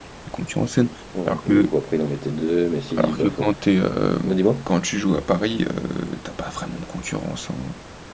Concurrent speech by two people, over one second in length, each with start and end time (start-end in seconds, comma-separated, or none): none